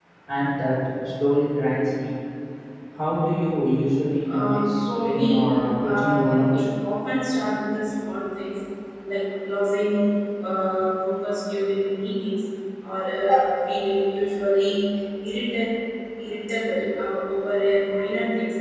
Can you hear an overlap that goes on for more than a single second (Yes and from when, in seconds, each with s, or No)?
Yes, from 4.3 s